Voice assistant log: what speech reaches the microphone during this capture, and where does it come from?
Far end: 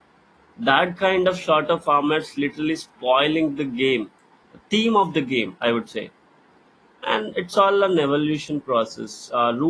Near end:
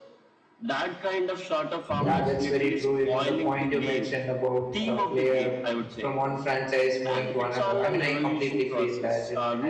both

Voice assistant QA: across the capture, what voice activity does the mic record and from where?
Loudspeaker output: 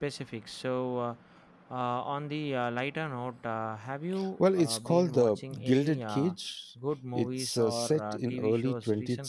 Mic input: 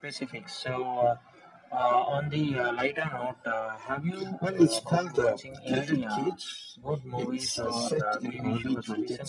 echo only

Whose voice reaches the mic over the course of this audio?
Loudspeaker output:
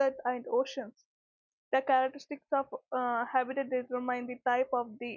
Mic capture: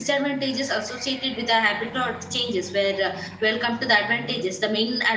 user only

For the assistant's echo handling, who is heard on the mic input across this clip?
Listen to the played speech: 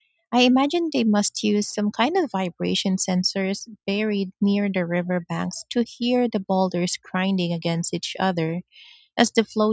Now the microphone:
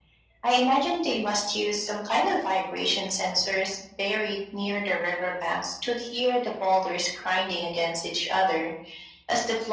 echo only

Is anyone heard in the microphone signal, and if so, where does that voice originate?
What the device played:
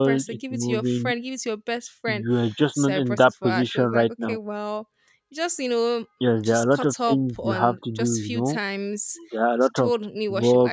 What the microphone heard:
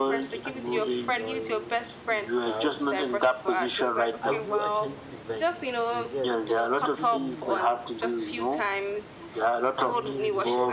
both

